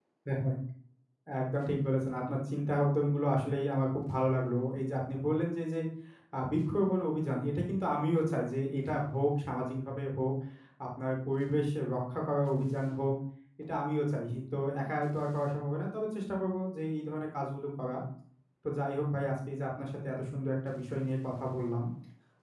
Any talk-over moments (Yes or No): No